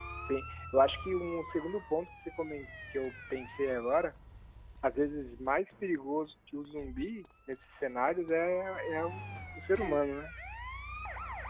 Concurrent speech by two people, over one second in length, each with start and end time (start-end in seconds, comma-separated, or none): none